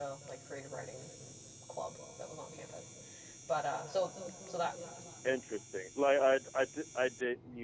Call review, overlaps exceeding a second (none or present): none